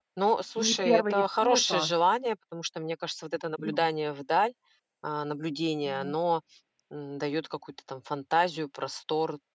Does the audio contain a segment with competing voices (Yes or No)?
Yes